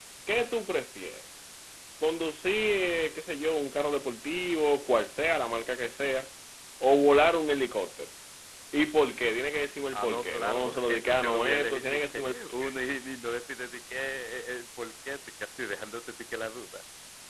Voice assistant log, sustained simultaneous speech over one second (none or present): present